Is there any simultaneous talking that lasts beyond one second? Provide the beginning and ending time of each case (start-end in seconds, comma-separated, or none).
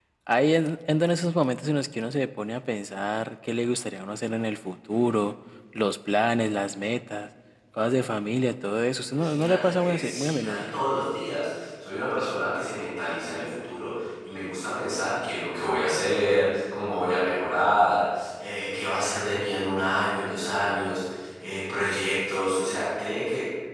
9.1-10.8